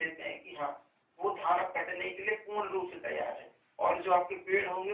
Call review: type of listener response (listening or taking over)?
listening